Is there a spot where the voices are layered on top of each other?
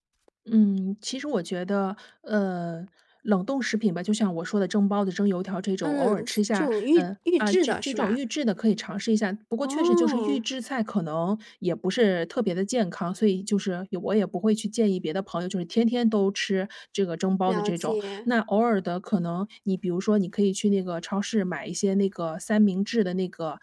Yes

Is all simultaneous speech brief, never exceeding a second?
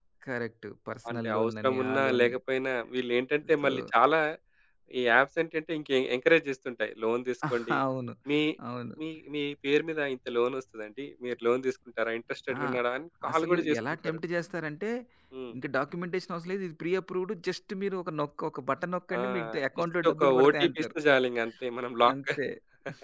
No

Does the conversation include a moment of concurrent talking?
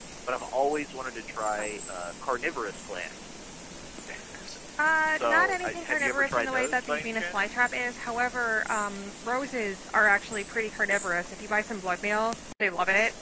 Yes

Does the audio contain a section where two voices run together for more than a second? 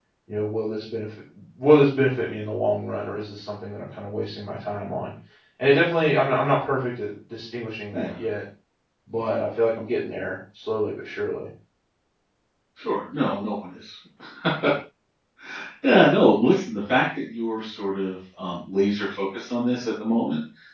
No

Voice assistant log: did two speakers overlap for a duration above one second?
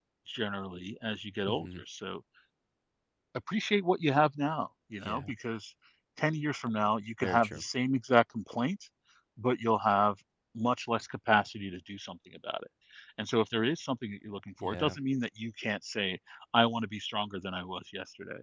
No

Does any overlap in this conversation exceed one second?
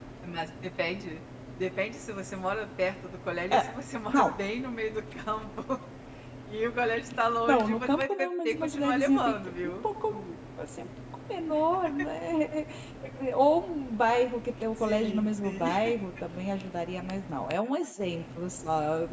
Yes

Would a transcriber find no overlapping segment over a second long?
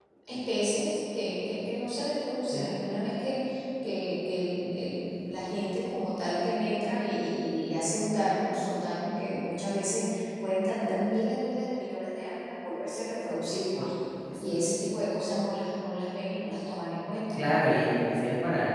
Yes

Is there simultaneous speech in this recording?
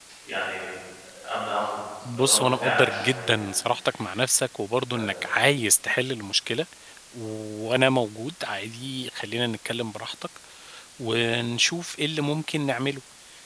Yes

